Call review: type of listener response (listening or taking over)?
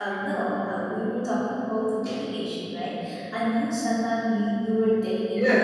taking over